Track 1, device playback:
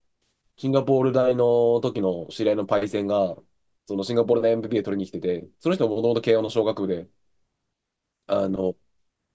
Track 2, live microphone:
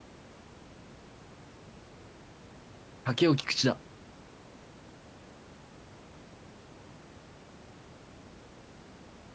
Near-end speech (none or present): present